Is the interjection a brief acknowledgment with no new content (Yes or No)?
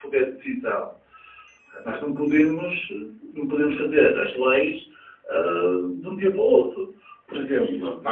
Yes